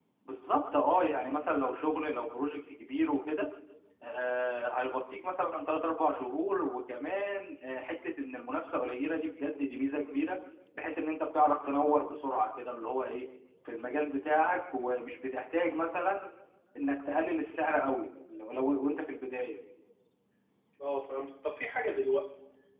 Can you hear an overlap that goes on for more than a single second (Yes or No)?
No